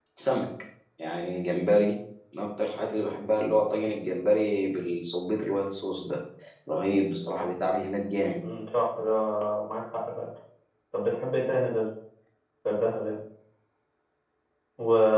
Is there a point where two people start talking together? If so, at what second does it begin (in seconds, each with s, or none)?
none